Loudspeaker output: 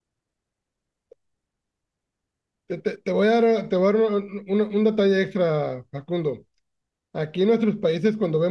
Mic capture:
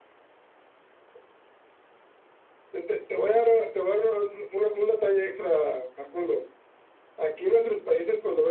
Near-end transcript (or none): none